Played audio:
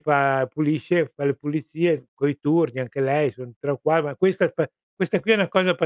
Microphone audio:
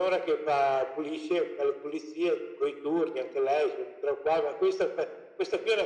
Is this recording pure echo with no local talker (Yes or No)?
Yes